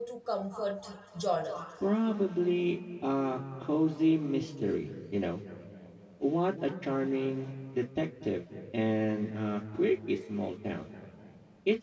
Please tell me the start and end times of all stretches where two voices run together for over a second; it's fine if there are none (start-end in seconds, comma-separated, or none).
none